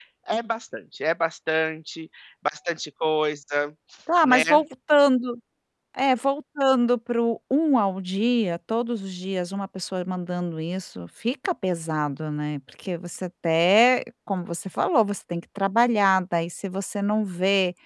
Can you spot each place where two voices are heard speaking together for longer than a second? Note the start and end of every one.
none

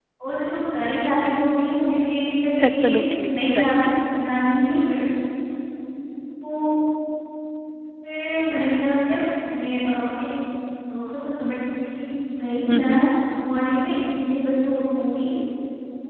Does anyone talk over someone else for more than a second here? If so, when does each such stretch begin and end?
2.7-3.9

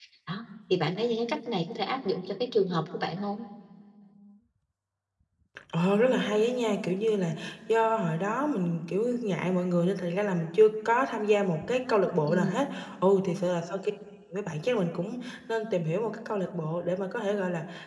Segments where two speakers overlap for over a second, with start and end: none

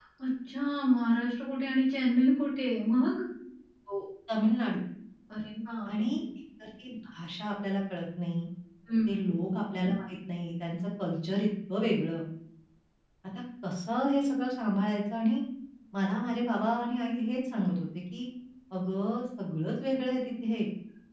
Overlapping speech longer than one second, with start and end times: none

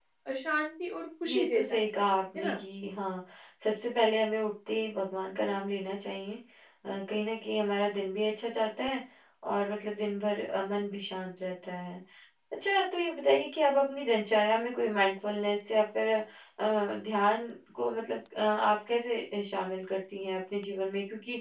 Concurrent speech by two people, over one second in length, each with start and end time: 1.3-2.6

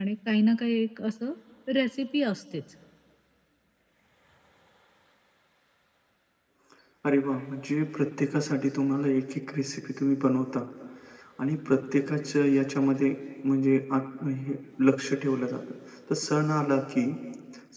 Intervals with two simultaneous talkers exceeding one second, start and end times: none

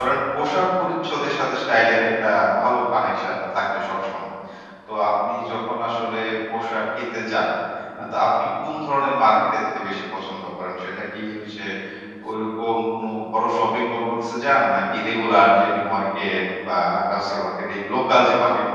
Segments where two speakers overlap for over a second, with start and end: none

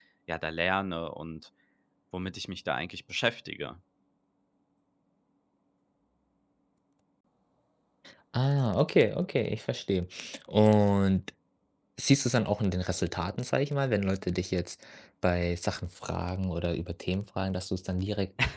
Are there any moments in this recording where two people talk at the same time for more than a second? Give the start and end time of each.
none

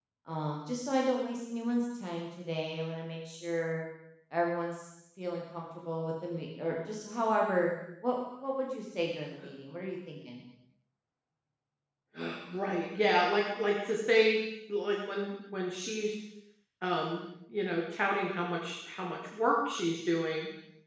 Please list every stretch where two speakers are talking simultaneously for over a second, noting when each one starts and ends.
none

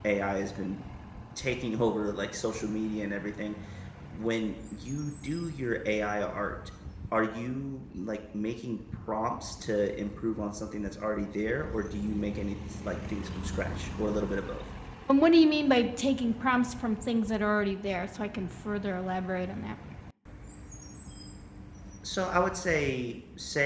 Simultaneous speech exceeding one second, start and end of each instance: none

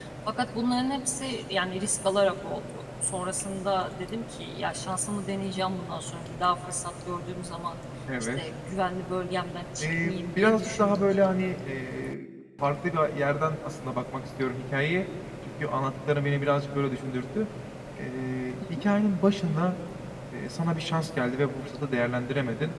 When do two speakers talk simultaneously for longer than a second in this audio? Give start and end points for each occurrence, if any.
9.8-11.3

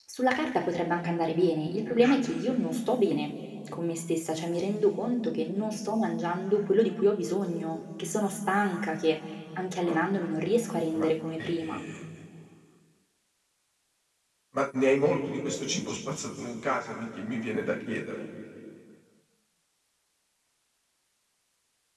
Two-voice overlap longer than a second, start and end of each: none

